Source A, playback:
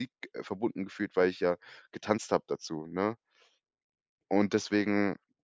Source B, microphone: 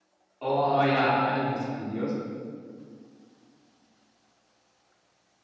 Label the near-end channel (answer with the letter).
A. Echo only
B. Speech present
B